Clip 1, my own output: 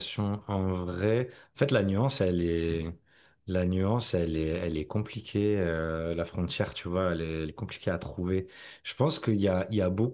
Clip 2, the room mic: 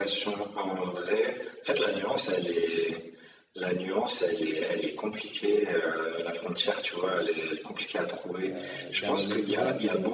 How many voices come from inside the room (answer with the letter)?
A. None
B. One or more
B